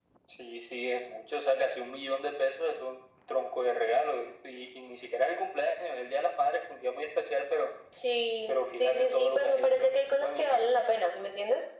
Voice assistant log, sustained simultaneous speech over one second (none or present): present